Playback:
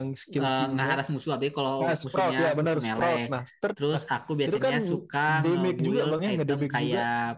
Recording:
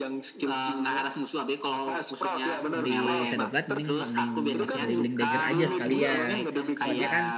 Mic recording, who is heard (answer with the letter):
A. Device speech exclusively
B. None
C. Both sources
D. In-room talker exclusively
C